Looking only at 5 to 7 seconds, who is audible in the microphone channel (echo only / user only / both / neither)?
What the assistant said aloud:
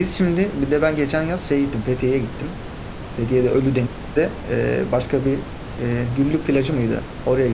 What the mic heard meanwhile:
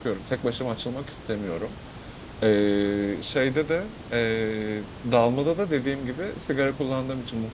user only